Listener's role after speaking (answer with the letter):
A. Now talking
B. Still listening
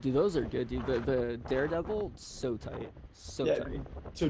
A